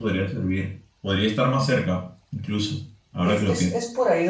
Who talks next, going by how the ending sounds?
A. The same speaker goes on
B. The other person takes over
B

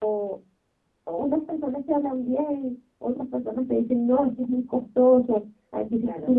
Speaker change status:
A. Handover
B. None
B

